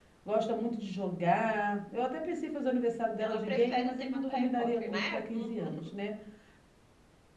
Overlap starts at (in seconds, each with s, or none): 3.2 s